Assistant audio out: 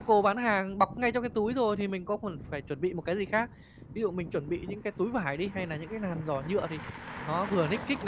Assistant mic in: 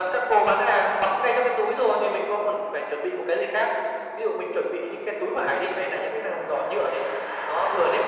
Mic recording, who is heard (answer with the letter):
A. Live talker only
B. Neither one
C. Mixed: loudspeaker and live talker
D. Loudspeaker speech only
D